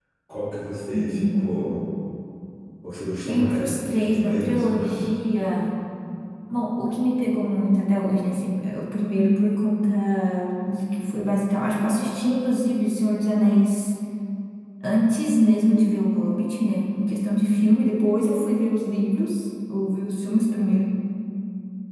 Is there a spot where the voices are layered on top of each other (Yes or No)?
Yes